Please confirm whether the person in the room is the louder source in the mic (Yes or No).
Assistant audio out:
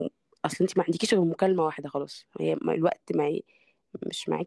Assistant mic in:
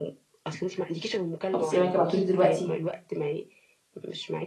Yes